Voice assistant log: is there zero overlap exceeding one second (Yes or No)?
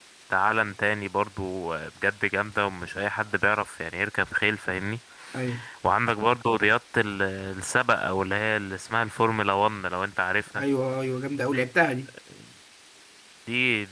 Yes